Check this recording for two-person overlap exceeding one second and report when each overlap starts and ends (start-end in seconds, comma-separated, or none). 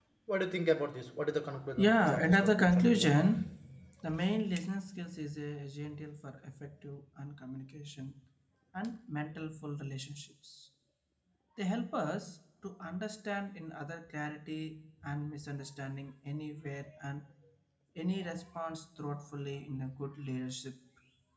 1.8-3.2